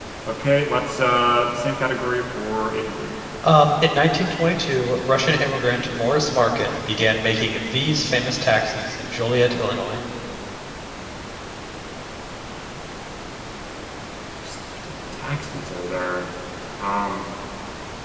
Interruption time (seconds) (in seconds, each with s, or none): none